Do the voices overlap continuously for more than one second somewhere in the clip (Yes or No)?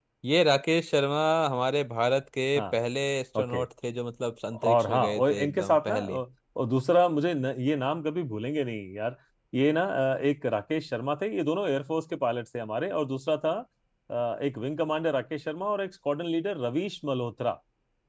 Yes